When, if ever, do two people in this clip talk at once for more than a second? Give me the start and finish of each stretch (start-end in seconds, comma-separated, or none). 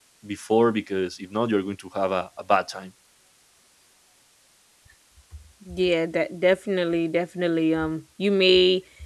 none